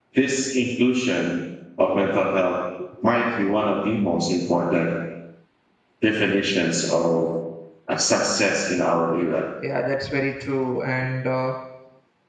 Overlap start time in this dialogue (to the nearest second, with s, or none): none